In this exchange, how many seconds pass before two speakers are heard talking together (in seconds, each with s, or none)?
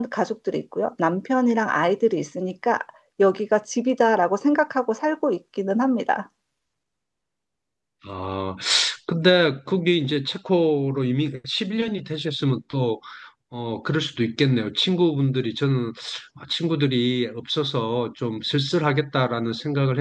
none